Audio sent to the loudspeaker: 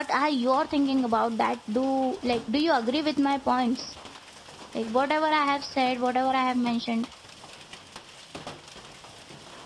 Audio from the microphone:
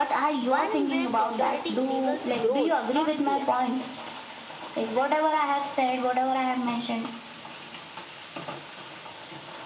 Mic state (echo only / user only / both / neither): both